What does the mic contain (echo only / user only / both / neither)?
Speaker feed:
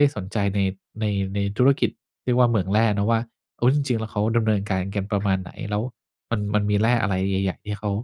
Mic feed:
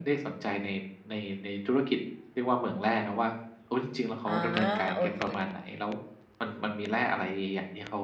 both